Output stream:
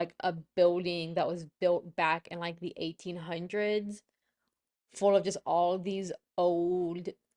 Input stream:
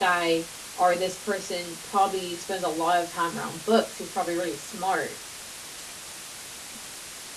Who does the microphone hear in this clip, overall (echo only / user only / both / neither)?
user only